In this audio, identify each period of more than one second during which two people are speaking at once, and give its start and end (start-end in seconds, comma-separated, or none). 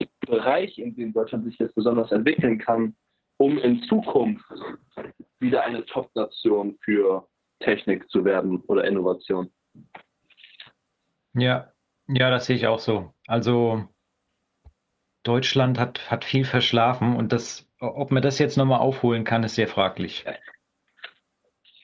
none